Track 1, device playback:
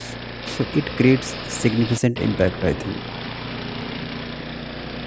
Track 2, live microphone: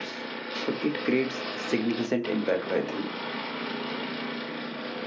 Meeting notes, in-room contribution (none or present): none